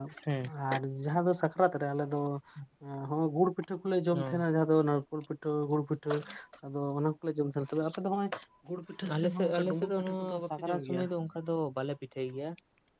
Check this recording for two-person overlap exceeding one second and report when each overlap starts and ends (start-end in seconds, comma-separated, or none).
9.2-11.0